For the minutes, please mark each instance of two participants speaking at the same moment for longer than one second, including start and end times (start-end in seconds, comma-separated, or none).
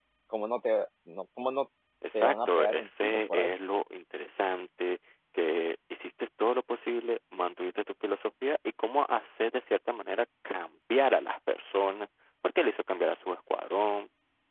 2.1-3.5